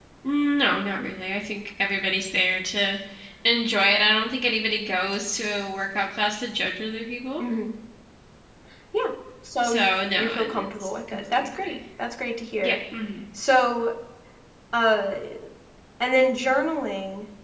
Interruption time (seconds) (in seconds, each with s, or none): 9.6 s